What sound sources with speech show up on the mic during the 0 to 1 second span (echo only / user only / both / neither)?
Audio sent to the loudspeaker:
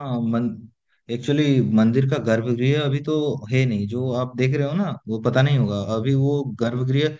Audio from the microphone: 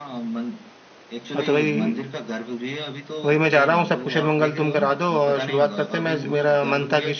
echo only